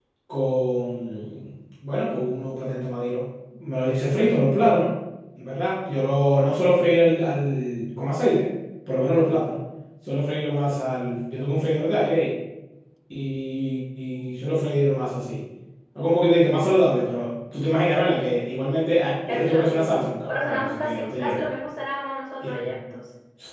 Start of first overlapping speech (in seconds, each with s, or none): 19.3 s